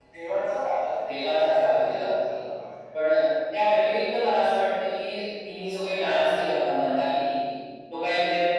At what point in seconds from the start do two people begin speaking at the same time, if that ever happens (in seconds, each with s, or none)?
1.1 s